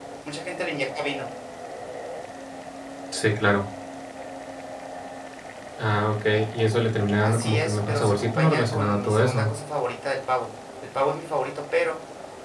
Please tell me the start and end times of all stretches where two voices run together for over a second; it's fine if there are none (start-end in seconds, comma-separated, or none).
7.2-9.5